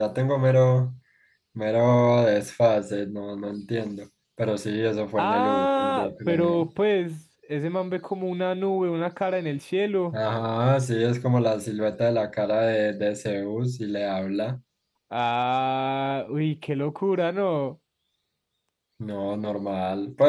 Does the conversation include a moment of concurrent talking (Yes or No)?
Yes